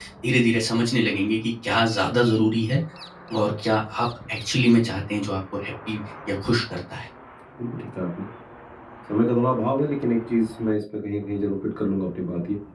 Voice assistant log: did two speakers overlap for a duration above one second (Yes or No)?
No